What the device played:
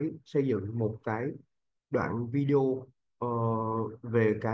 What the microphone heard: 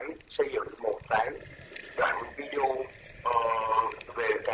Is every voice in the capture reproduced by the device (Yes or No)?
Yes